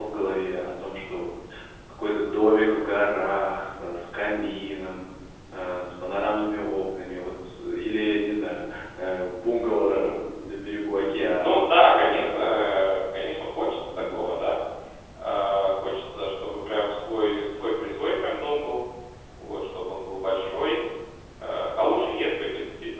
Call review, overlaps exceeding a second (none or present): present